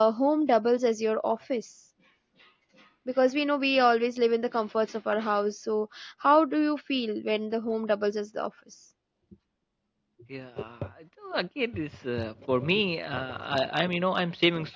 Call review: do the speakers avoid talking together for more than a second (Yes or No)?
Yes